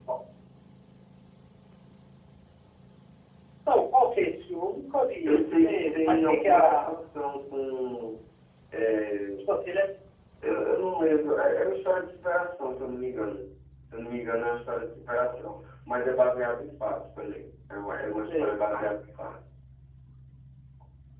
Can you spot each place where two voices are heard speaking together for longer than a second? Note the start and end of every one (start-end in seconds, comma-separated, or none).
5.3-6.9